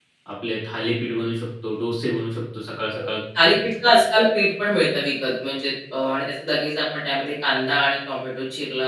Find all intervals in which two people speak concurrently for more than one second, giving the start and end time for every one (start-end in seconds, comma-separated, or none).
none